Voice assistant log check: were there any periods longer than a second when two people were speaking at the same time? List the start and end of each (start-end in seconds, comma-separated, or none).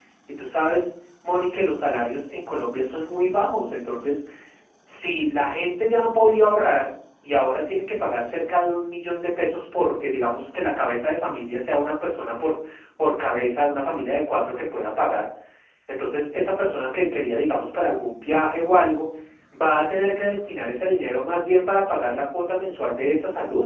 none